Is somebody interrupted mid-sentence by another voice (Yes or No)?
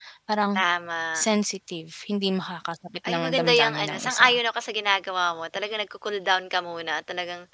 Yes